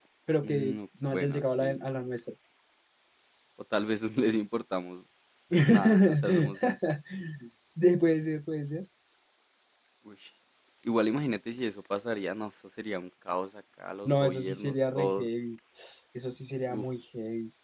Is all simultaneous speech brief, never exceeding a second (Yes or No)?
No